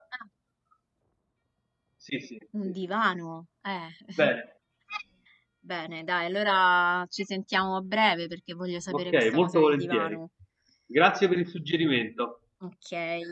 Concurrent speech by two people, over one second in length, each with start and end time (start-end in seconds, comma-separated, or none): 8.9-10.2